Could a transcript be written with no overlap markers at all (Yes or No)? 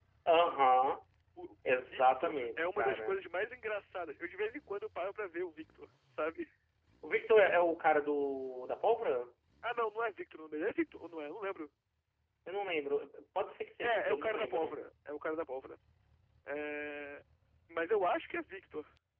No